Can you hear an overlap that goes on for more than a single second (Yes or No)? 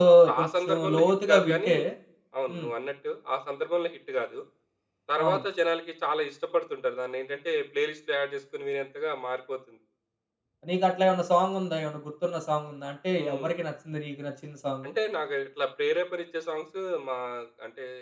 Yes